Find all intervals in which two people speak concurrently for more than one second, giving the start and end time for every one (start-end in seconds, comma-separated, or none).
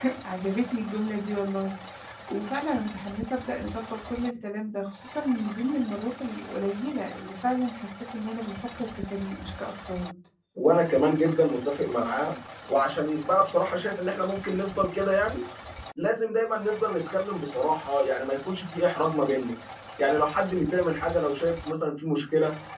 none